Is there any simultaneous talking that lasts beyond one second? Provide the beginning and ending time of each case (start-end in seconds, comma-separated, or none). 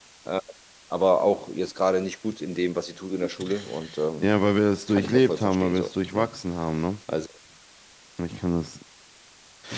4.9-6.3